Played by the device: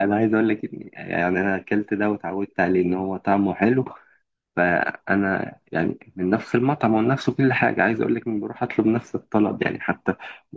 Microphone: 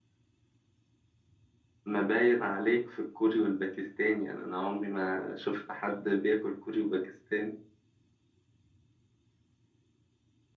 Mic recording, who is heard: user only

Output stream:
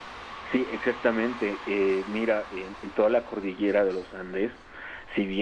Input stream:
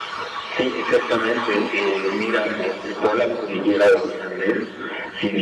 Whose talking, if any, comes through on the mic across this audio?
echo only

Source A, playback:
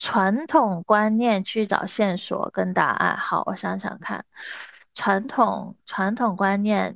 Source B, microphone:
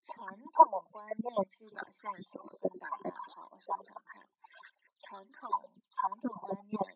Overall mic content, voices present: echo only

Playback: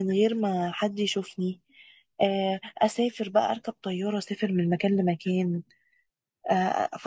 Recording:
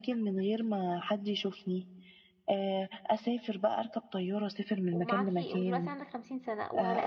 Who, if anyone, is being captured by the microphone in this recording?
both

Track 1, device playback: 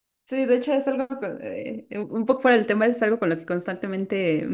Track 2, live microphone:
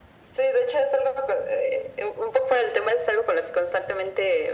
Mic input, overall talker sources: echo only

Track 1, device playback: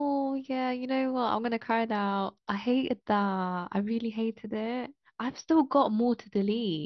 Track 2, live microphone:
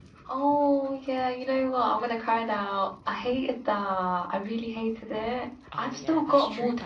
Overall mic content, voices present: both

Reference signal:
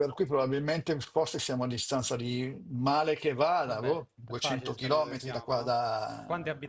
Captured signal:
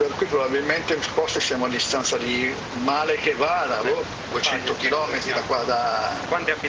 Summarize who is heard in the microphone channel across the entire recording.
echo only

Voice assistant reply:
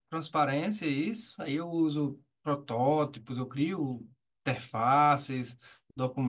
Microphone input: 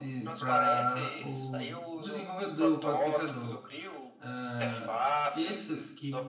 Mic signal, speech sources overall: both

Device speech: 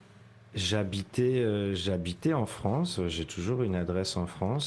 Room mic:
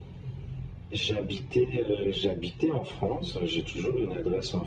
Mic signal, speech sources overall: echo only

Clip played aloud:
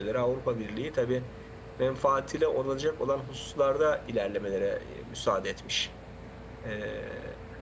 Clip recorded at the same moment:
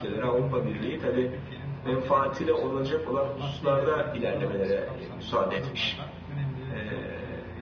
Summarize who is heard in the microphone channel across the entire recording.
both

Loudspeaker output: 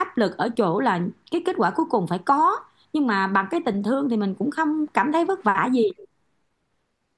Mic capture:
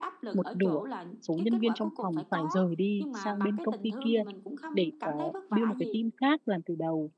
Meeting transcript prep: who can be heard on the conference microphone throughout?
both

